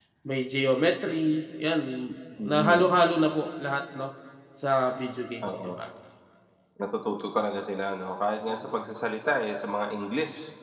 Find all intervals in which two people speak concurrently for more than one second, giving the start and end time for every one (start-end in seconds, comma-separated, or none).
none